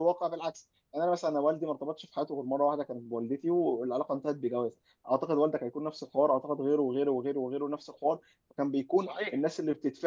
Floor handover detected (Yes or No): No